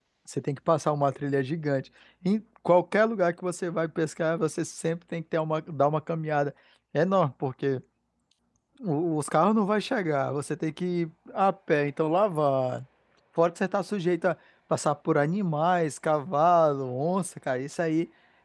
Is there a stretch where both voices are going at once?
No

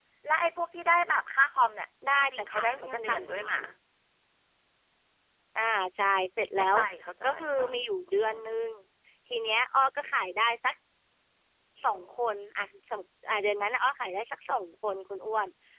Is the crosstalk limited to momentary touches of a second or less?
No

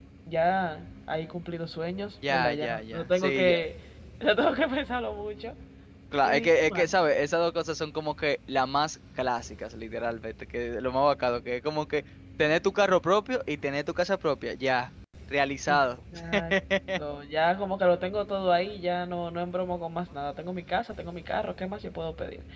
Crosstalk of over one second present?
Yes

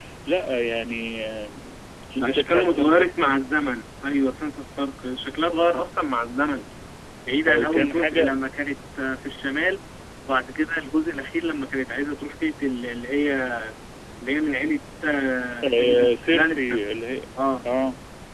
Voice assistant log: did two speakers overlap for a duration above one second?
Yes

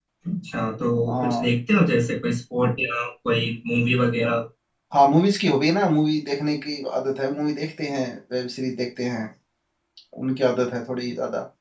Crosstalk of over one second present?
No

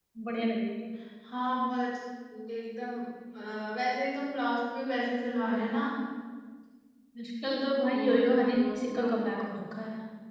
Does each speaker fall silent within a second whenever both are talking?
No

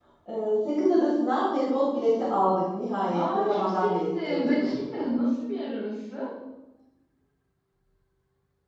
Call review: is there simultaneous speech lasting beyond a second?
Yes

